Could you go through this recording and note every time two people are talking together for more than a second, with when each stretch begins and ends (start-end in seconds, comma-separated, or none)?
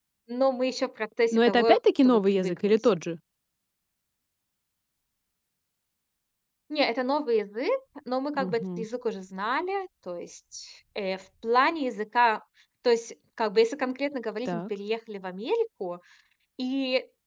1.3-2.7